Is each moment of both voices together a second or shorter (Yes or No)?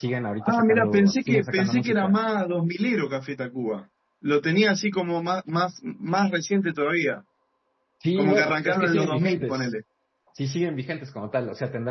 No